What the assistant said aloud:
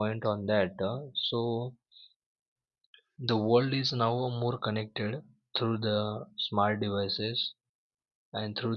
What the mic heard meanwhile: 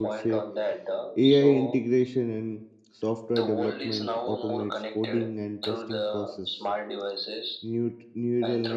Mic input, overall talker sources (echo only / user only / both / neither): both